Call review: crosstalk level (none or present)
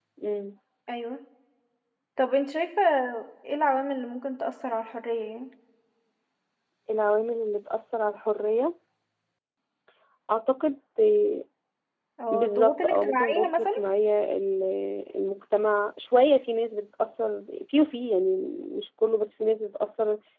present